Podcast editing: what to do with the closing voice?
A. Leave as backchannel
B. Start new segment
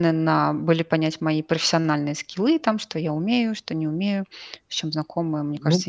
B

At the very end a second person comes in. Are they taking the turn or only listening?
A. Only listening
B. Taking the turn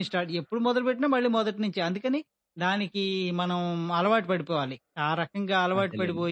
A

